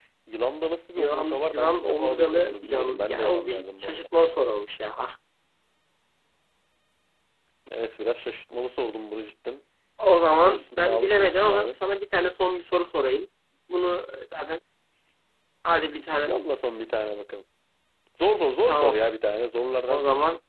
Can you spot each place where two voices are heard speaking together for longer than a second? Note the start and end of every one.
1.0-4.0, 10.3-11.8

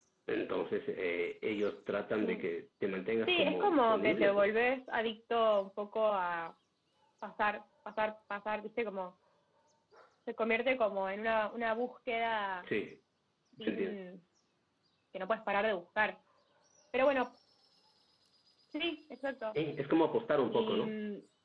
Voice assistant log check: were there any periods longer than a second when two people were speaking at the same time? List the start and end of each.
3.3-4.5

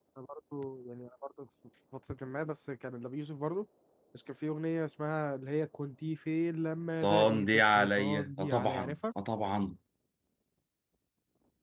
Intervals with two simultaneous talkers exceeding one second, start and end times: 7.0-8.9

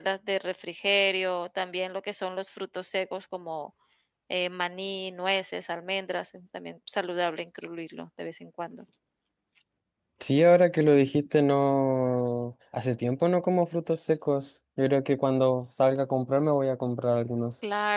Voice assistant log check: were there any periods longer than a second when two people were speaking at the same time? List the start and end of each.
none

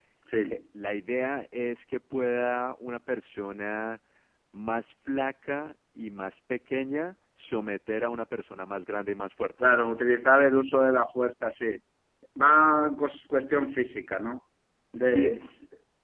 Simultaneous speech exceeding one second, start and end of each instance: none

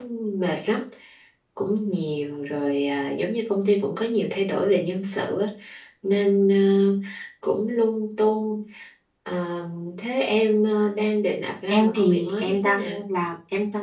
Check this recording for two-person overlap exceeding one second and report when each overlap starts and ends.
11.7-13.0

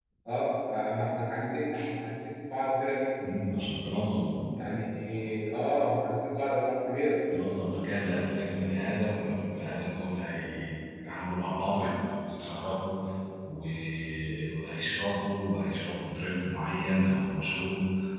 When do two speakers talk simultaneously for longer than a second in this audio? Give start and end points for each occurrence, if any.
none

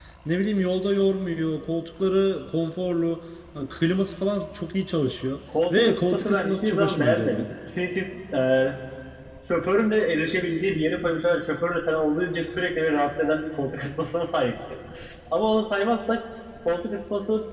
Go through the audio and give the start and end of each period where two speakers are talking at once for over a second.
5.7-7.5

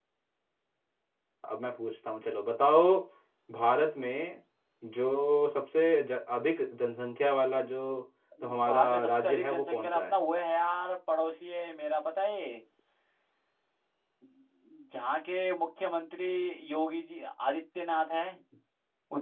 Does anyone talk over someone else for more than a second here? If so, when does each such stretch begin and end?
8.7-10.2

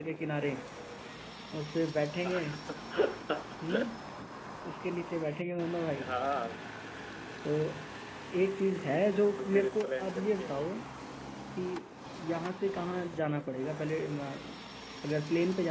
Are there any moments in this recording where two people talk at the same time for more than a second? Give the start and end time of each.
9.4-10.7

